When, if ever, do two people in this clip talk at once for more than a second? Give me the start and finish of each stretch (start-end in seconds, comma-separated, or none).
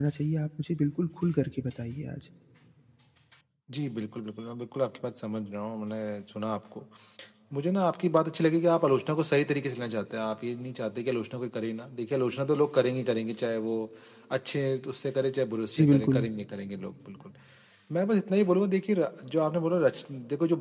none